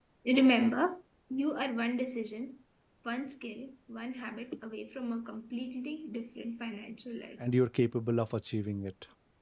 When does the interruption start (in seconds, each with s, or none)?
none